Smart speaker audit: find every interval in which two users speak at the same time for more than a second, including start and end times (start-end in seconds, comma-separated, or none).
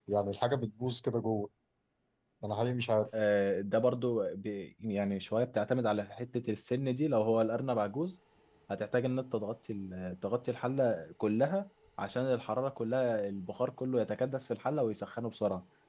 none